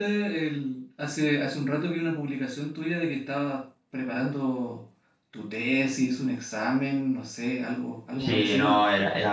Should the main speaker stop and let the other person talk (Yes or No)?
Yes